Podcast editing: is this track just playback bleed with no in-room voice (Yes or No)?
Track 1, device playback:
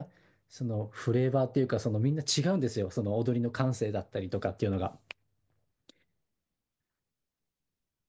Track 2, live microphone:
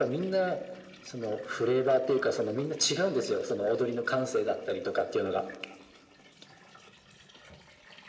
Yes